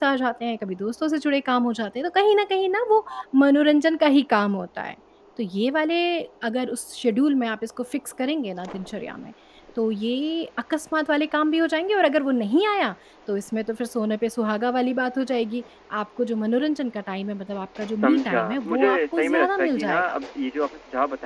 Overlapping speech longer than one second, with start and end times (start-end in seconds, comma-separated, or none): 17.8-20.2